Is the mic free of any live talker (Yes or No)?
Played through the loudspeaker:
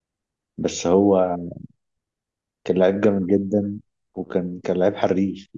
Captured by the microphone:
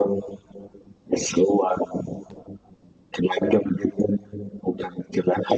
Yes